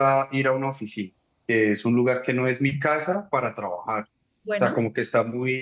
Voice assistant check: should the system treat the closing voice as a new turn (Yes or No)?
No